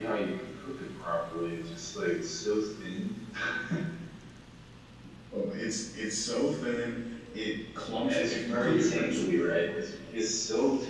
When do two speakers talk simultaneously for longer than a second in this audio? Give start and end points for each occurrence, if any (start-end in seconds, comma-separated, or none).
7.9-9.3